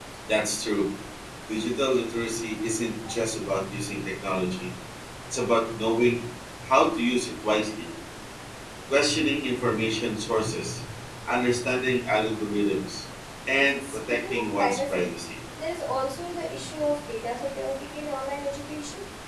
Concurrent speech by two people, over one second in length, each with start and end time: 13.9-15.2

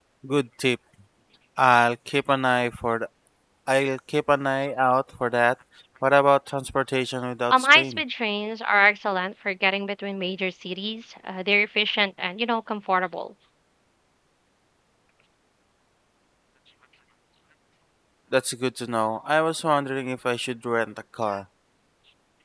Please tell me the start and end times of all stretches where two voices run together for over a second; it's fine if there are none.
none

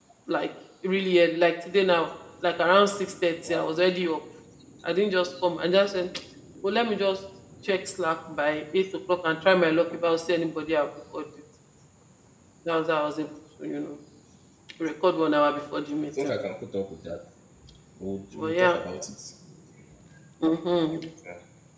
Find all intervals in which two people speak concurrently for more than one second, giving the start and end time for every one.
none

